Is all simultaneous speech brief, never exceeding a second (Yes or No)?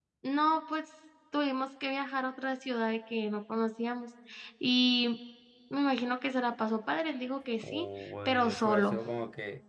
No